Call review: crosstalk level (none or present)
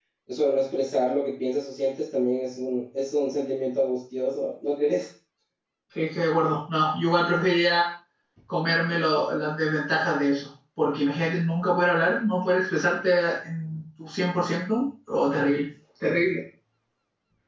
none